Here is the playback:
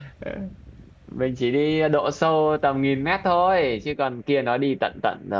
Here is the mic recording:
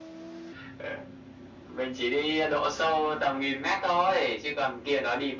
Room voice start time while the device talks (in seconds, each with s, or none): none